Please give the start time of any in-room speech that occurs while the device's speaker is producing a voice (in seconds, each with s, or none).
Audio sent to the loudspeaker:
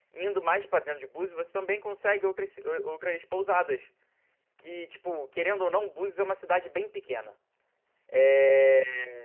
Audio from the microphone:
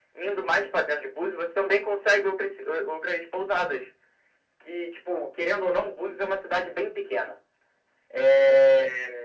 none